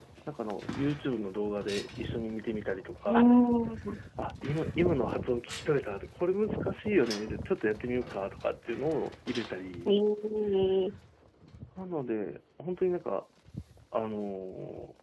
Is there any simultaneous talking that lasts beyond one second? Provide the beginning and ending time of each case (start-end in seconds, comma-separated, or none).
none